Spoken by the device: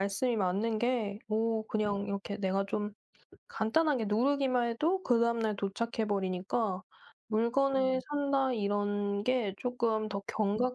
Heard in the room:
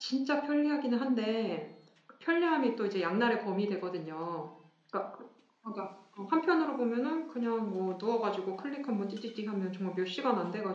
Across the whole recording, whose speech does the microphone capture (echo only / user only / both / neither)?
user only